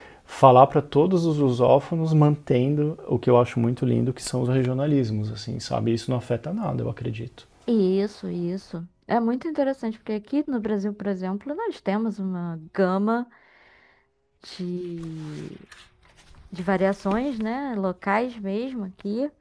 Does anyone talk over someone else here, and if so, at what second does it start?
none

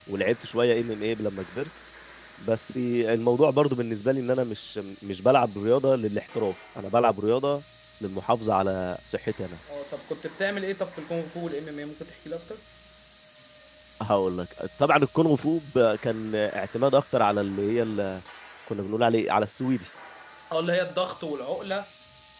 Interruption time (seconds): none

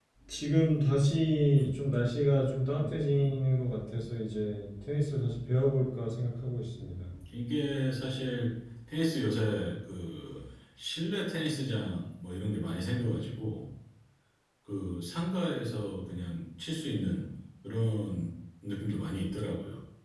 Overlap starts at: none

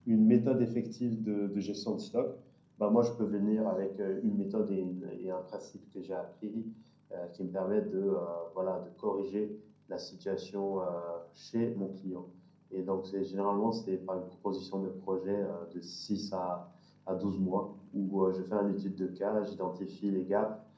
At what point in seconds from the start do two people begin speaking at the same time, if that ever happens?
none

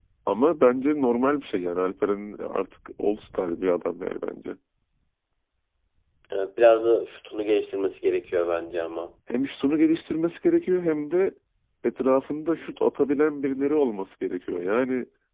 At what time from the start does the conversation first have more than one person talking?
none

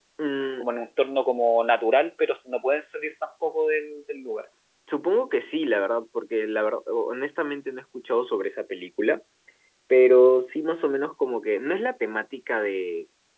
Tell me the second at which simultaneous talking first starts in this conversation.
none

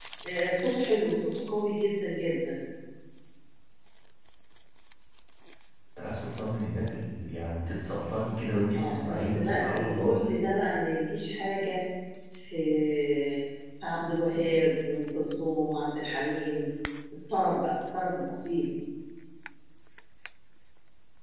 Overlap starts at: 8.7 s

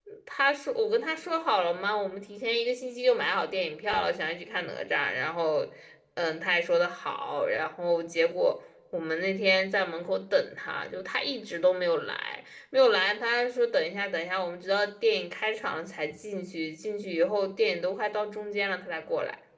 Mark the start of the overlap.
none

